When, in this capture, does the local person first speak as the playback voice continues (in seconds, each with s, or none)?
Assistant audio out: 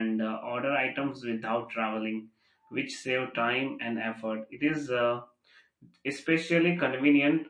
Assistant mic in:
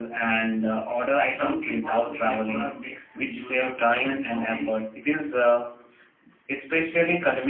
1.3 s